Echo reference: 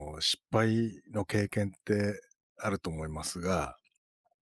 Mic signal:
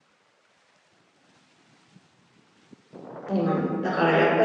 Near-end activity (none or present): present